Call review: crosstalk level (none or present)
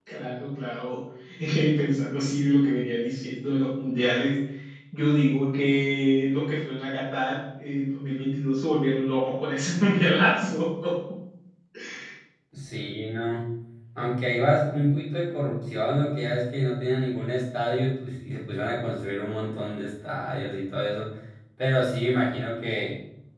none